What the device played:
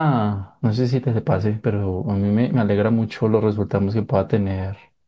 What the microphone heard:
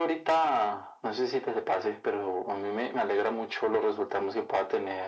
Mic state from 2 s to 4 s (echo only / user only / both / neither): echo only